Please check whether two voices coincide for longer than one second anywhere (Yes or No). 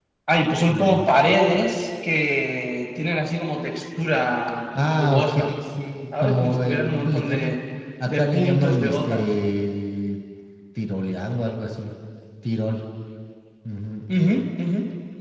Yes